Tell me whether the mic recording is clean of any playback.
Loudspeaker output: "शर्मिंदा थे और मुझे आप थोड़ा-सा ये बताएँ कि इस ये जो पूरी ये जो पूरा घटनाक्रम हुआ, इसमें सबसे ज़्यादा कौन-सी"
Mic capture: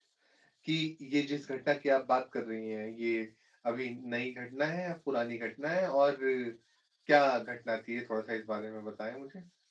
Yes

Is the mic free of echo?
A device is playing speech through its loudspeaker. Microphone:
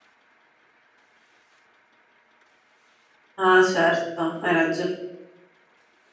Yes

